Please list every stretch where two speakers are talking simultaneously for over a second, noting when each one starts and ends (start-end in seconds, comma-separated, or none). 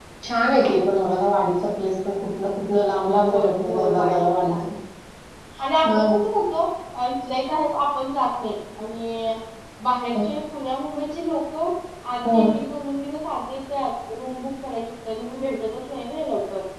3.3-4.5